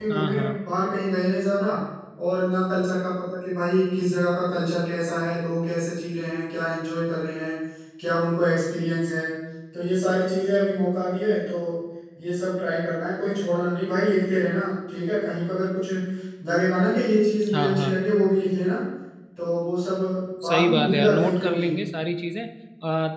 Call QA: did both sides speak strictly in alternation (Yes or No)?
No